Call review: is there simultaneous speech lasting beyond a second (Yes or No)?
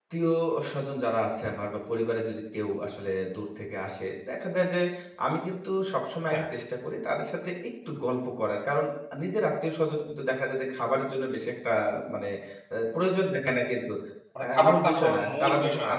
Yes